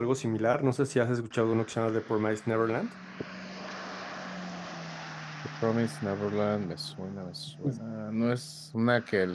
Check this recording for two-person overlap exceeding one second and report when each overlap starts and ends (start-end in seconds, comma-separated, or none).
none